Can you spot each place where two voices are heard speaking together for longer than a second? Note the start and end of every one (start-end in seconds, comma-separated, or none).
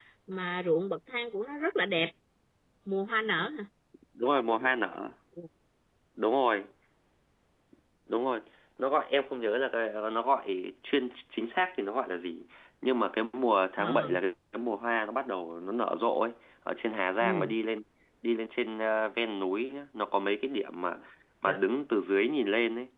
none